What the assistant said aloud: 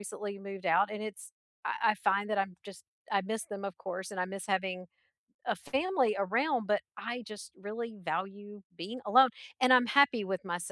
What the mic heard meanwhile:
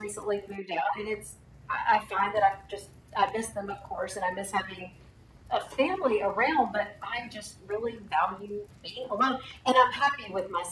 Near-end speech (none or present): none